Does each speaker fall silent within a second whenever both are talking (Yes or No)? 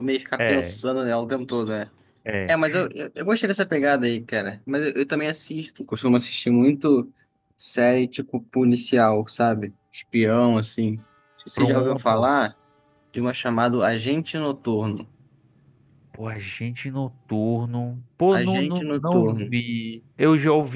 No